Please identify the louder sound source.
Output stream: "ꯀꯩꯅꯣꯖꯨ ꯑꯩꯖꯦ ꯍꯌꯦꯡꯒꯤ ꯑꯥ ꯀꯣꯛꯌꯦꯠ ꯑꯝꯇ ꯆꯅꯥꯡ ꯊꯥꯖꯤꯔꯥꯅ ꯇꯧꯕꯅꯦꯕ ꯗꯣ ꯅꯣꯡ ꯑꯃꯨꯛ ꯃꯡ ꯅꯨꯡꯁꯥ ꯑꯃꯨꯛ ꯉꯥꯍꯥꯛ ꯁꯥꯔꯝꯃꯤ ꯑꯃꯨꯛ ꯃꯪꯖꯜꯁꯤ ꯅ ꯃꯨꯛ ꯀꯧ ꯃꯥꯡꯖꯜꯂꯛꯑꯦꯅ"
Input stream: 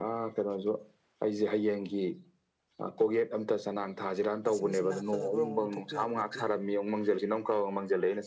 echo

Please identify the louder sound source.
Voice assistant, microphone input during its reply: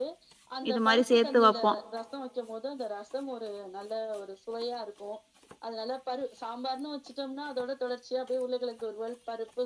user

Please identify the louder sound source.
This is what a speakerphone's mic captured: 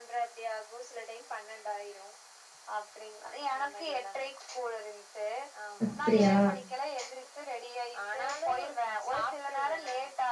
user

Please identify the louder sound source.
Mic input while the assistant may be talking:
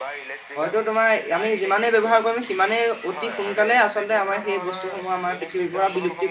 user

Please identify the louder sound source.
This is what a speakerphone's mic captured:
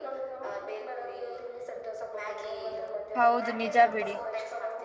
user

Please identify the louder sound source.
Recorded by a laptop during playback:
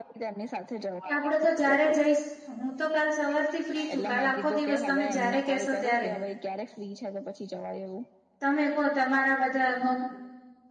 user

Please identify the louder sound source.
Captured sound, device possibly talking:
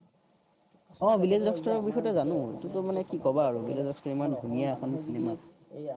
user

